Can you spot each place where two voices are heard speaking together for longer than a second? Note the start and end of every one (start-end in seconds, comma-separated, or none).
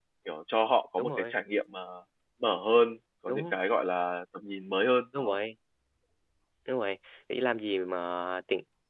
none